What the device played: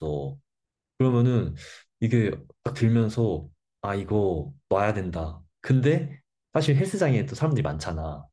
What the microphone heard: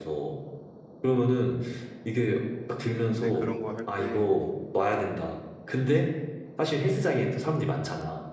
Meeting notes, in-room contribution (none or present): present